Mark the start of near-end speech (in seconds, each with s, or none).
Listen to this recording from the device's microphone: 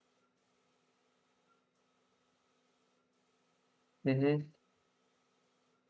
4.0 s